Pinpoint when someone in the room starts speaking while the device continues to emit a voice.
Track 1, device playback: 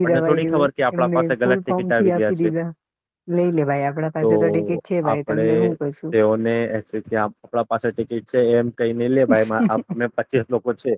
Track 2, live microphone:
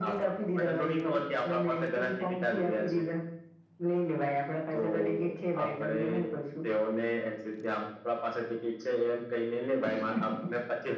none

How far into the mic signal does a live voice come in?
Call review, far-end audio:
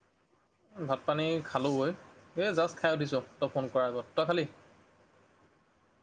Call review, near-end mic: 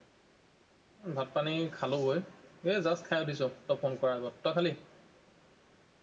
none

